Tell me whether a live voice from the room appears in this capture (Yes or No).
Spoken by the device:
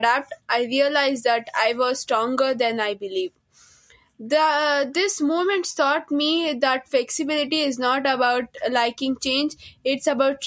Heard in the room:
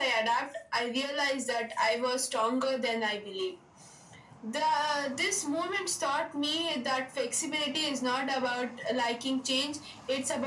No